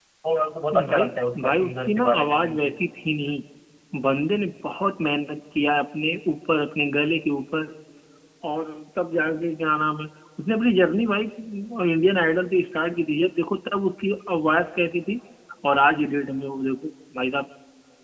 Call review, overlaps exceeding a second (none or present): present